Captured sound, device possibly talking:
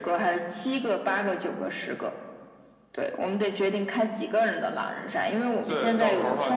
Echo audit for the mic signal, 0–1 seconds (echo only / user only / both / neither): echo only